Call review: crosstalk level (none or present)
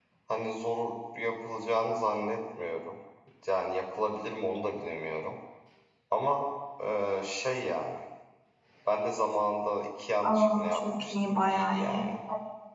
present